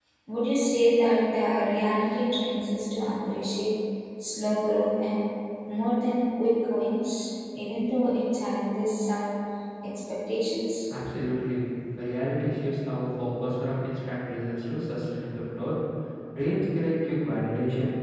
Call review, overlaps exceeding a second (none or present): none